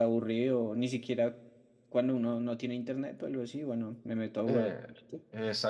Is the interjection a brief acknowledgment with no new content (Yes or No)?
No